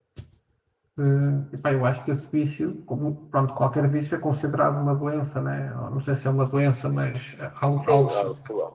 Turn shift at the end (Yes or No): Yes